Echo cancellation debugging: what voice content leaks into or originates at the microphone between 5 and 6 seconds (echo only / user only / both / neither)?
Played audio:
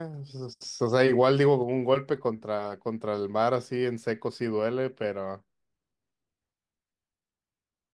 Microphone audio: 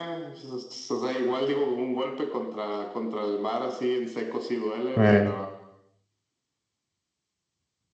both